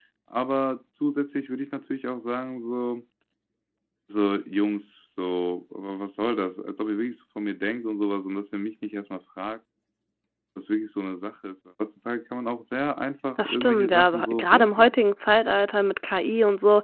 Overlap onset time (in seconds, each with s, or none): 13.4 s